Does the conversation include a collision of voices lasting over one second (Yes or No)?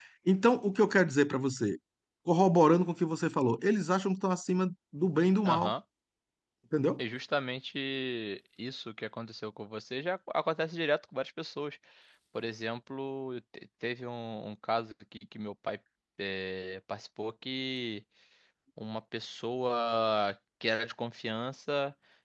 No